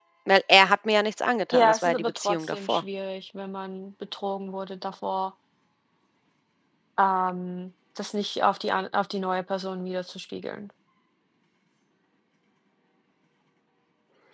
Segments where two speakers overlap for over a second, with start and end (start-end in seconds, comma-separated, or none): 1.5-2.8